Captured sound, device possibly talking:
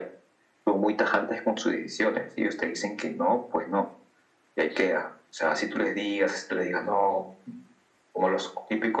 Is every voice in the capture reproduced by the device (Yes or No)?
Yes